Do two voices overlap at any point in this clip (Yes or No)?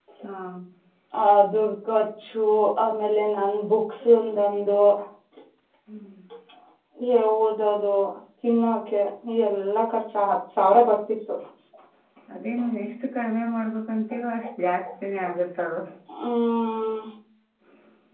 No